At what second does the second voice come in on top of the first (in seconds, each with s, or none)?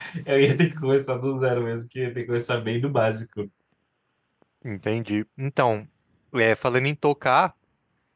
none